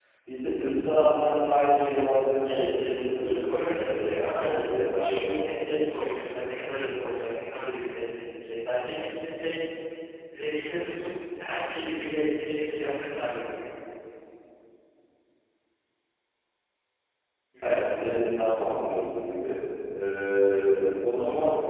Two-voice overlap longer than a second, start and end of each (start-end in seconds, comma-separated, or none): 2.5-5.3